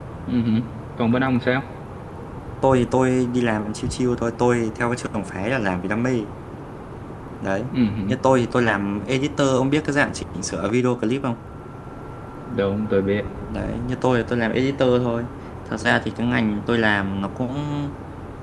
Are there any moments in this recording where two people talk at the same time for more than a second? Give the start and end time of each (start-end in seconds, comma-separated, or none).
none